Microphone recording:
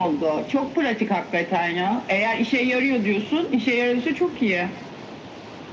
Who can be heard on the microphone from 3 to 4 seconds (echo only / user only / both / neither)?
echo only